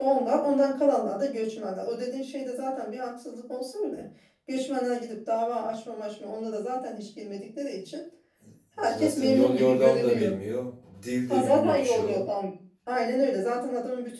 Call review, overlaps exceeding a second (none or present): present